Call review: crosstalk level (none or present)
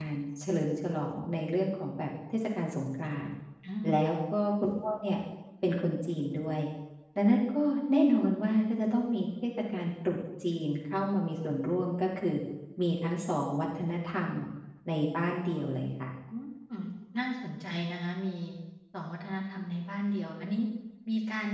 none